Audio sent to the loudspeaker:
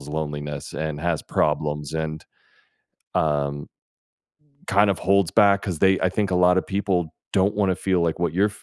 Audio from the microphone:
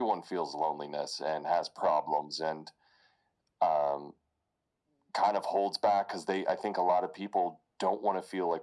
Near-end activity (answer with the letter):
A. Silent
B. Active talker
A